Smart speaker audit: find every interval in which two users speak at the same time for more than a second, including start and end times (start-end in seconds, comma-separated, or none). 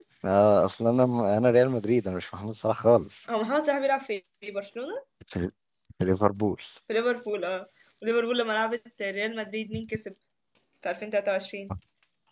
none